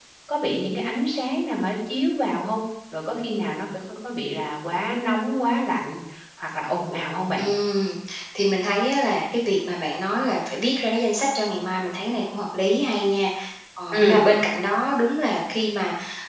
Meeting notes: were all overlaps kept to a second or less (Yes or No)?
Yes